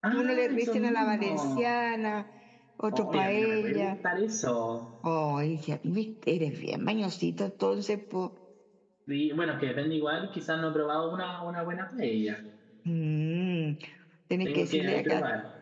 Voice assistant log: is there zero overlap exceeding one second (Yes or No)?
No